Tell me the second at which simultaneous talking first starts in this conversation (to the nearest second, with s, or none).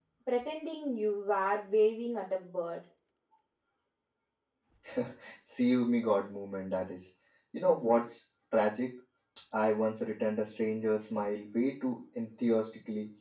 none